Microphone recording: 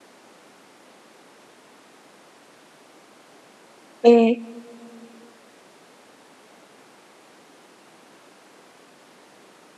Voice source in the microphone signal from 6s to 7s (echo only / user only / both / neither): neither